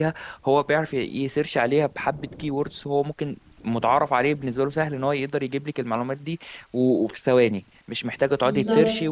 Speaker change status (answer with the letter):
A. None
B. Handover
A